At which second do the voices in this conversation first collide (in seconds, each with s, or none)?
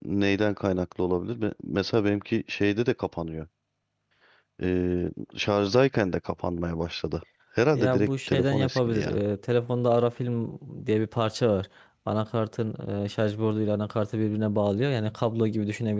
7.7 s